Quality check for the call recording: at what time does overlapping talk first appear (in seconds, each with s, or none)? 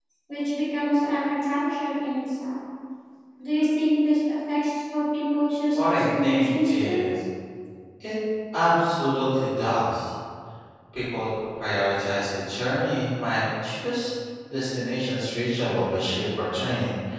5.7 s